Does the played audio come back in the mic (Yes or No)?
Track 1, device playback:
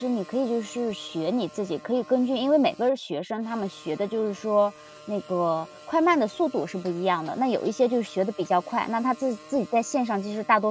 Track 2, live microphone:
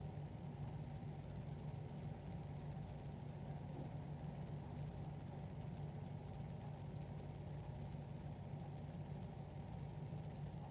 No